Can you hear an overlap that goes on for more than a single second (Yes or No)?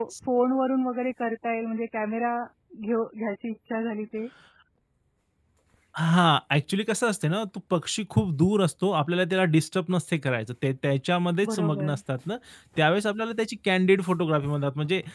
No